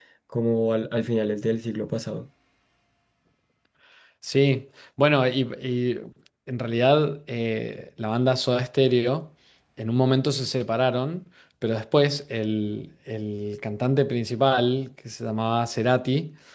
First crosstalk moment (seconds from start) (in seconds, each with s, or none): none